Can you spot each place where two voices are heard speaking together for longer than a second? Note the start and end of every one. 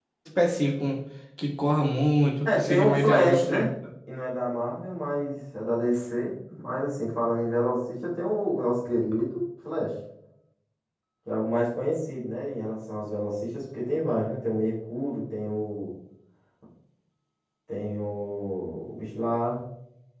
2.4-3.7

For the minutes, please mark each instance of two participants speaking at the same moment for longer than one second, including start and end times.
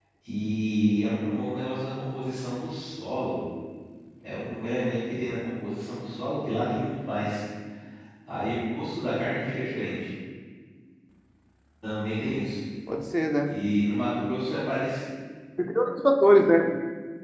none

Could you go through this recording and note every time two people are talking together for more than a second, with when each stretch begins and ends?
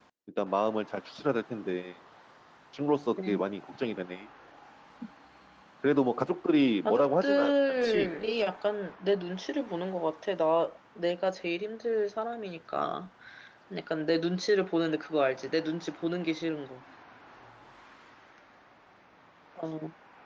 6.8-8.1

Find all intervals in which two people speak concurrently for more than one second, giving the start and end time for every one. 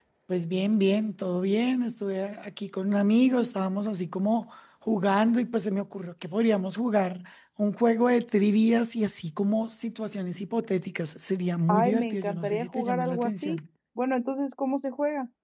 11.7-13.6

